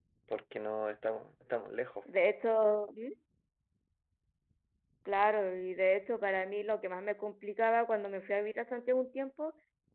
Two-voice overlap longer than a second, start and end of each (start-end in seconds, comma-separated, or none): none